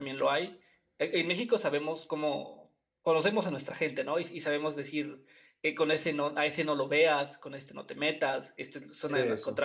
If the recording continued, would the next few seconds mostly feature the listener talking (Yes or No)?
No